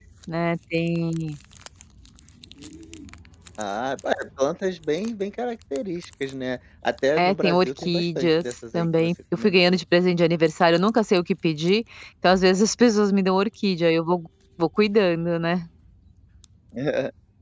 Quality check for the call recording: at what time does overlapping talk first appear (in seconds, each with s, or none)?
7.2 s